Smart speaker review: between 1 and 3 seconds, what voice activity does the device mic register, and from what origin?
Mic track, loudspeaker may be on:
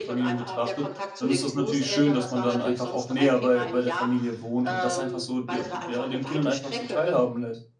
both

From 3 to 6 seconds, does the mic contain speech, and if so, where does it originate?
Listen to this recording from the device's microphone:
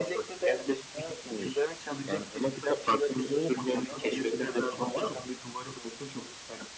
echo only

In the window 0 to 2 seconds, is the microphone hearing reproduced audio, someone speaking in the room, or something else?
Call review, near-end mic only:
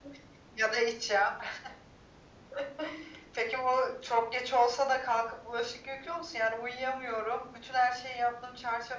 echo only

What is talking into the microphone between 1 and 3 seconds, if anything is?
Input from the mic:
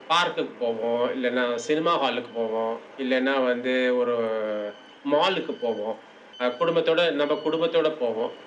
echo only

